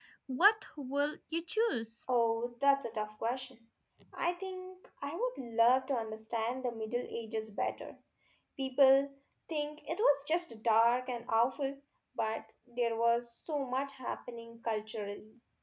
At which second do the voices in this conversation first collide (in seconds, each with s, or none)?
none